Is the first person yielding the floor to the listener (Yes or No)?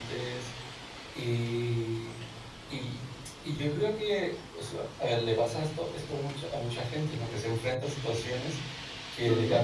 No